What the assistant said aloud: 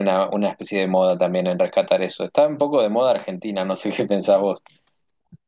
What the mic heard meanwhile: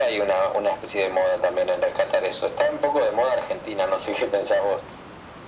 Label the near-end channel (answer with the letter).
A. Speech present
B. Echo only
B